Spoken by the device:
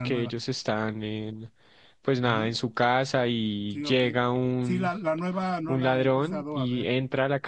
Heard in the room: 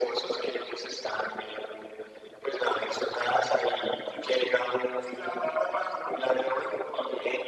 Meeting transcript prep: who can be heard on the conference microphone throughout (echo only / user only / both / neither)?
echo only